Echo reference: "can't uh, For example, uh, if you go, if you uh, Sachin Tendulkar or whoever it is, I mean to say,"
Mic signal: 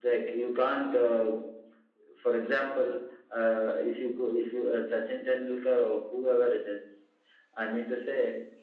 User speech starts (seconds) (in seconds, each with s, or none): none